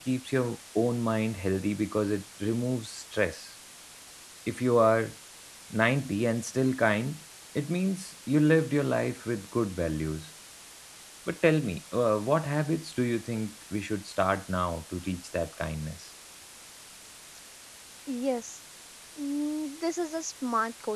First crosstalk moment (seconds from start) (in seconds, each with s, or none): none